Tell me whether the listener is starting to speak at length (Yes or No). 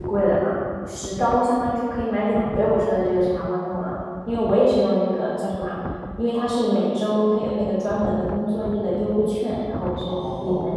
Yes